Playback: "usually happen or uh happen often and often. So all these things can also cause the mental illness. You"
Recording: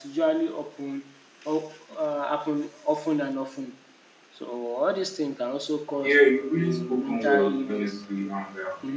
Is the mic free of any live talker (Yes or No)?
No